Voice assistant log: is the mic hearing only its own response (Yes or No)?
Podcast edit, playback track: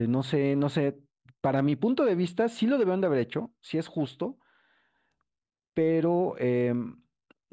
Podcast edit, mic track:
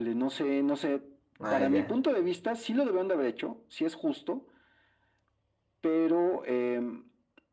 No